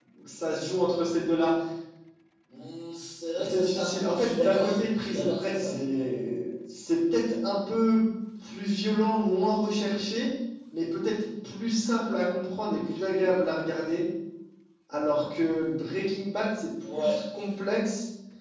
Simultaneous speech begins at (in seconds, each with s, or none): 3.4 s